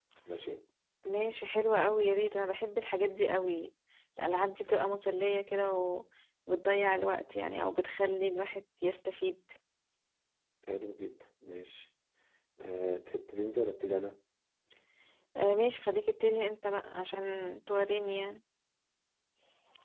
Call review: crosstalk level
none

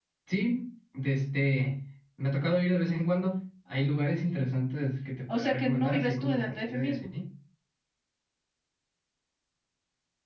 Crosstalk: present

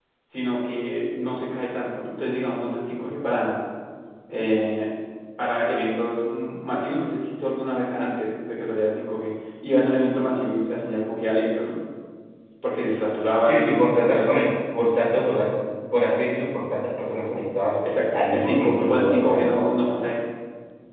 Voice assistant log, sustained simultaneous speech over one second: present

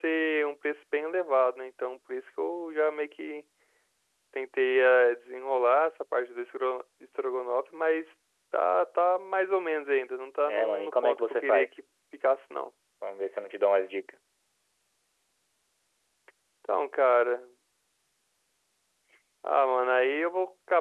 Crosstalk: present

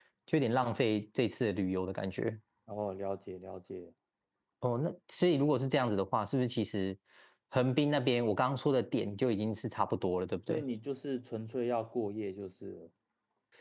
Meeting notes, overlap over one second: none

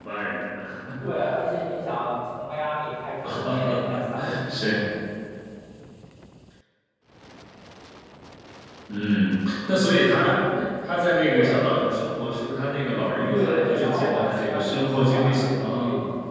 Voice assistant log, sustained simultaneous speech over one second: present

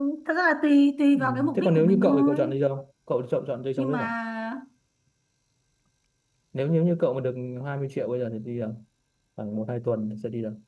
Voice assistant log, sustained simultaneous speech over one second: present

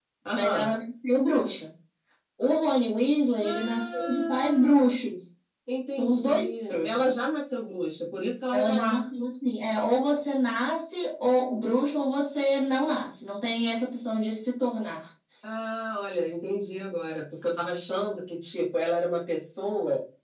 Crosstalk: present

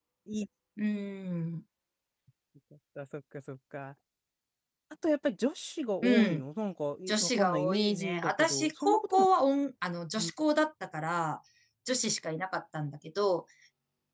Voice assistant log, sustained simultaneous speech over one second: present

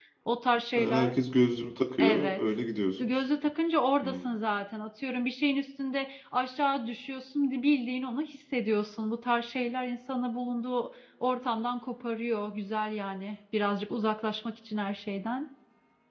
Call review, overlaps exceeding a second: none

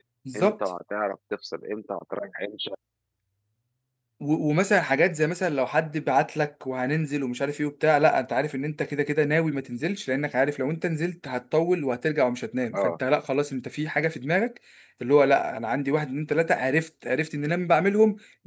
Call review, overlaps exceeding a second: none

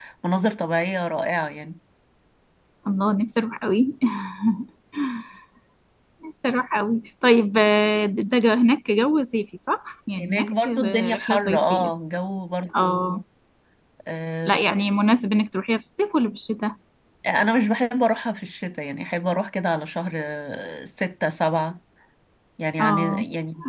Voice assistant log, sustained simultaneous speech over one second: present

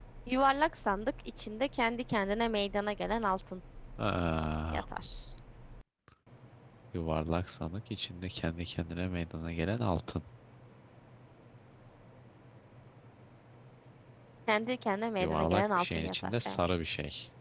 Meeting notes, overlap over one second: present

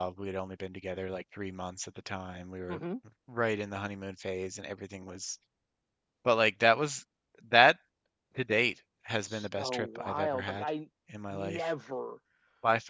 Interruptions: present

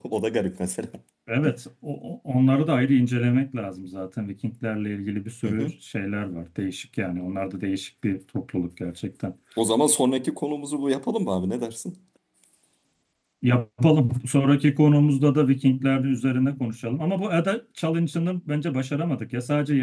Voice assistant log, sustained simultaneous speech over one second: none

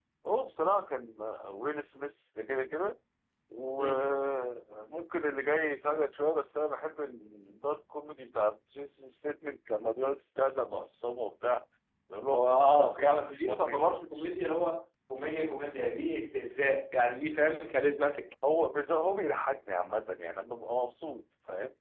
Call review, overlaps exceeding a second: present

